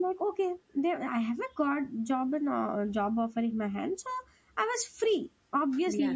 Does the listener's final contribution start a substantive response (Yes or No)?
No